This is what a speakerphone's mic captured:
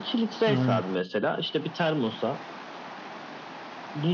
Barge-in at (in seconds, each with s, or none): 0.5 s